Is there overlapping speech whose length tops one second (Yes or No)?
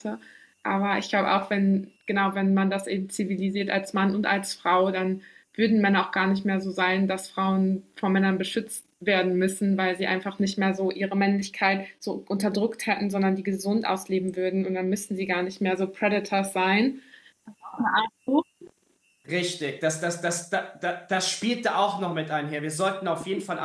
No